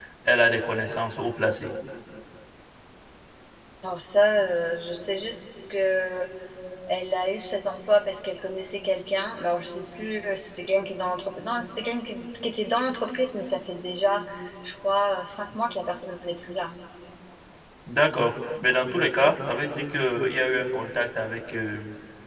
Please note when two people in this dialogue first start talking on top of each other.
none

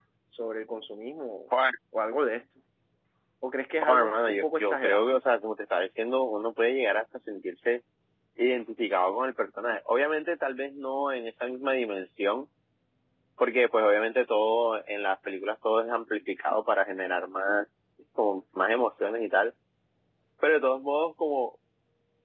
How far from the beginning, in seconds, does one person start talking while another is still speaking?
3.8 s

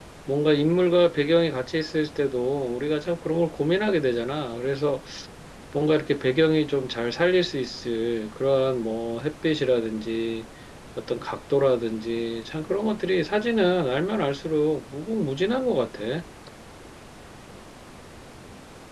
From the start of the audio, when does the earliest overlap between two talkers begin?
none

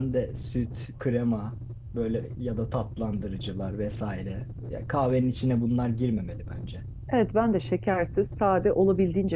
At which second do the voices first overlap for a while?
none

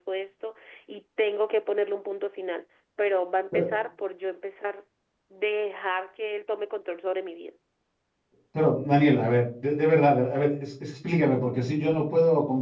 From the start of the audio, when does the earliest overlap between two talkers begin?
none

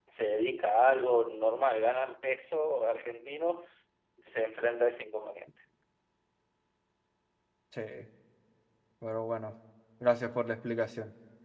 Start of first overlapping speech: none

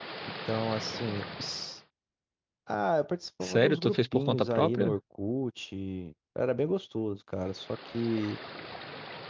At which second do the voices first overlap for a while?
3.4 s

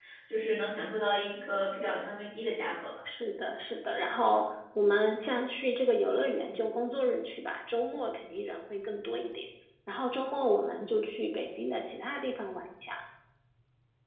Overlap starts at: none

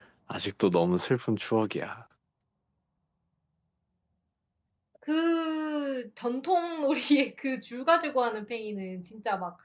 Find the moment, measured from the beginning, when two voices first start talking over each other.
none

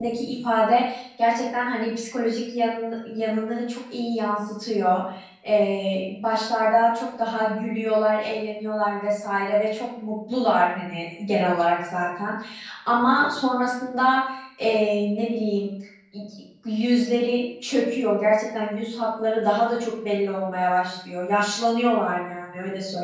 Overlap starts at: none

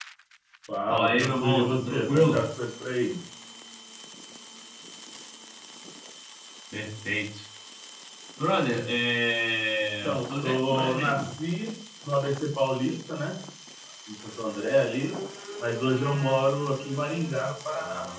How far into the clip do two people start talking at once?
0.9 s

